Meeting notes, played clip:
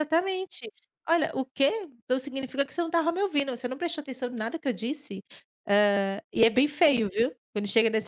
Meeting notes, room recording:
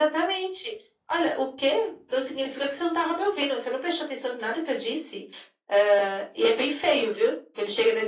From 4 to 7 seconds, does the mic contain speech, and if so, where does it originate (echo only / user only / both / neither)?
echo only